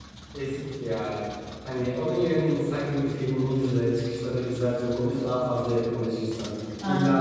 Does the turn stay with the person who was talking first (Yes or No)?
Yes